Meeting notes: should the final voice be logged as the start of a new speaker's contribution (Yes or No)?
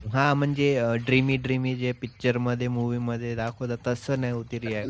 Yes